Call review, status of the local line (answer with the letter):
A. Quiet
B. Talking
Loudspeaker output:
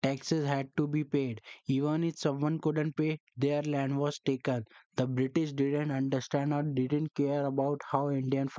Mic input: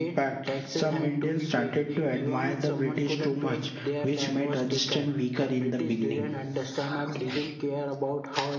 B